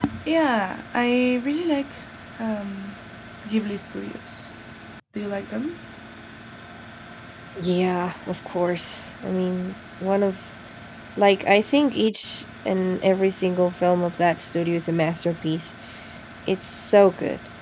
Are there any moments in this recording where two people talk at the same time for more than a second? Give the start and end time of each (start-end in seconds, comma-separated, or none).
none